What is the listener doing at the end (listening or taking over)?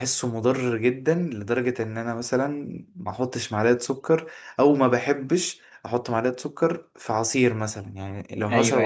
listening